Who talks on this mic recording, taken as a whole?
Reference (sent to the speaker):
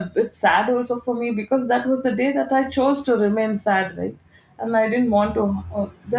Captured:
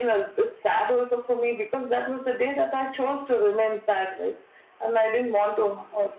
echo only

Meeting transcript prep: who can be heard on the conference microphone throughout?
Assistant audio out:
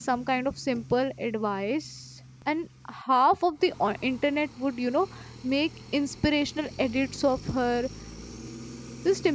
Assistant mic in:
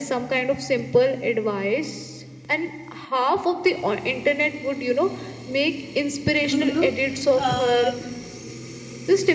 both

